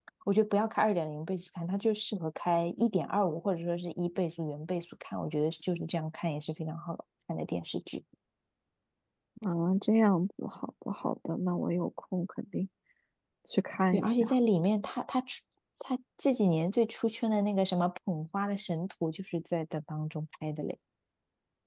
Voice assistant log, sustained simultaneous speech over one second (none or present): none